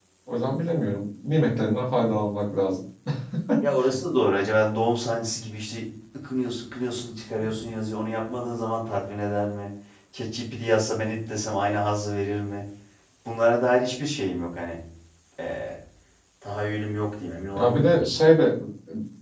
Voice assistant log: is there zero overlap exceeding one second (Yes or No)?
Yes